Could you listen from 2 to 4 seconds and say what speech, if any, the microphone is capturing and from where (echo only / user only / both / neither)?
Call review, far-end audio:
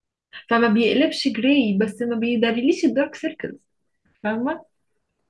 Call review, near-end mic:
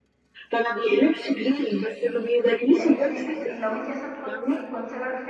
both